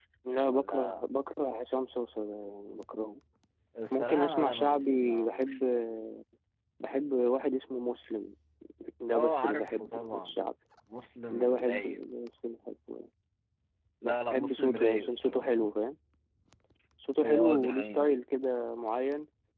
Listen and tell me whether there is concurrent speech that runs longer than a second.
Yes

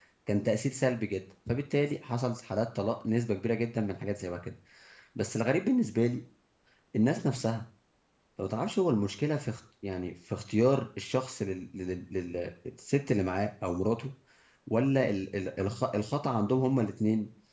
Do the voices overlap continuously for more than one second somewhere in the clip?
No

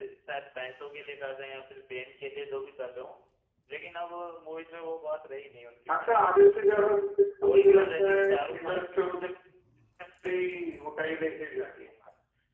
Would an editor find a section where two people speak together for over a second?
Yes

